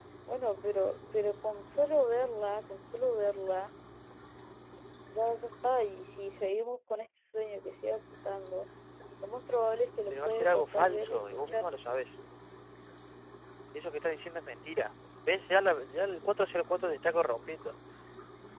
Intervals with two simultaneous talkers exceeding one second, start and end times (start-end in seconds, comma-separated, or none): 10.1-11.7